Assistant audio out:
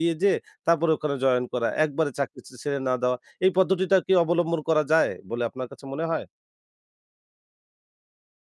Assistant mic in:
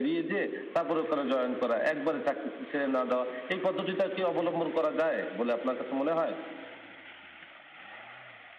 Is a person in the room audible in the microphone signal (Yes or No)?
No